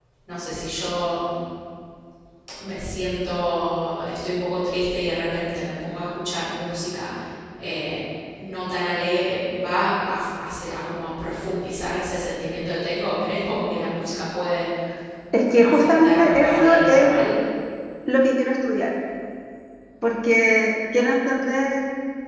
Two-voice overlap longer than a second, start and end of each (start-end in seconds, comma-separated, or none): 15.6-17.1